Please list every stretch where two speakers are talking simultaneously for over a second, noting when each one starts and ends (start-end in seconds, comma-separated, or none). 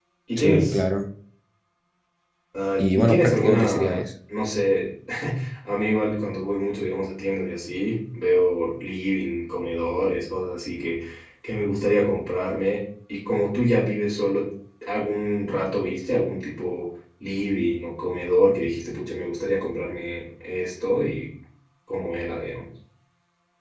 2.8-4.0